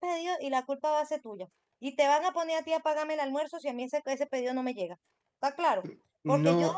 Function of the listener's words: listening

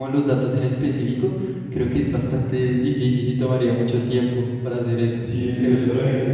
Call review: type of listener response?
taking over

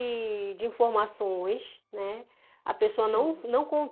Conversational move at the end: listening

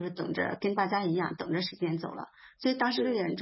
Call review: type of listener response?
listening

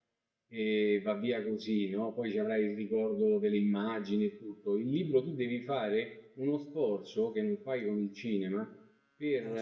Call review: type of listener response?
listening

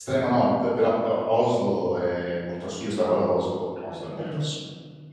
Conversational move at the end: listening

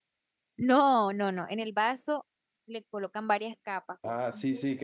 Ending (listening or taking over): taking over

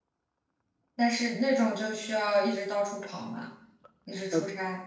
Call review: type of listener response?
taking over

